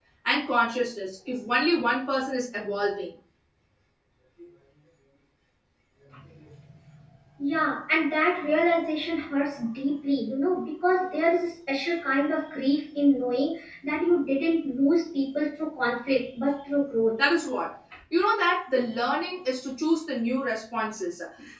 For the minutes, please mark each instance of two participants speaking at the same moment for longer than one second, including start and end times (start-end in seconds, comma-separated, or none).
none